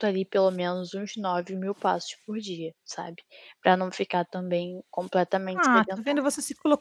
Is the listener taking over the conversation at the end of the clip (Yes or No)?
Yes